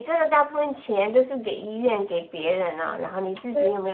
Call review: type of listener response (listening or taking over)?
listening